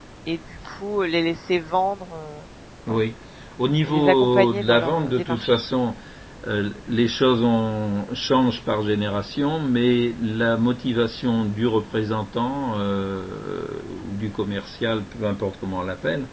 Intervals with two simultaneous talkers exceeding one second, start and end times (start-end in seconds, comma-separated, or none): 3.9-5.6